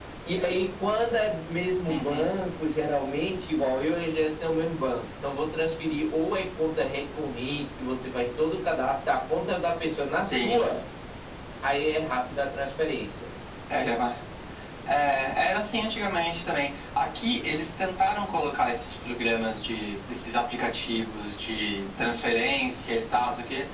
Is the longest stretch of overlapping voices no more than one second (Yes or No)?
Yes